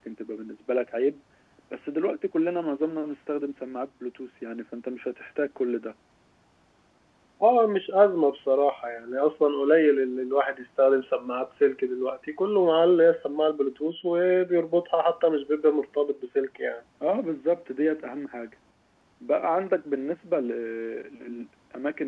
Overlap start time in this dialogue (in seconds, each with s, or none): none